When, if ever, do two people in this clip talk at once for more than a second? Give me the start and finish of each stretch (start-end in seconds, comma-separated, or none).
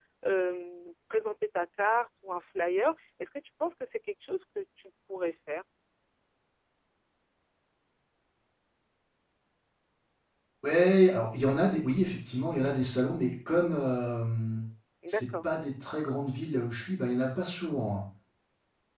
none